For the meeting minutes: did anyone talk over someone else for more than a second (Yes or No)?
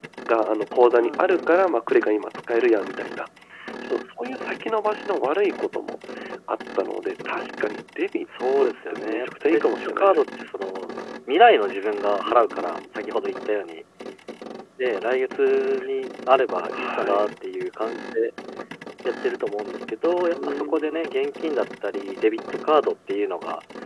Yes